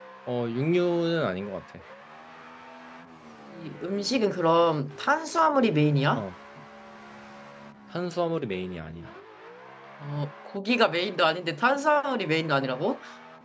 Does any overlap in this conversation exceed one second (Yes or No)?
No